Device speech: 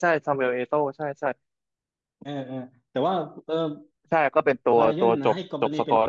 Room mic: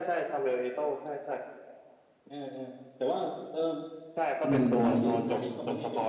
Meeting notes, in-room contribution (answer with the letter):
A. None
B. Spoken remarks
B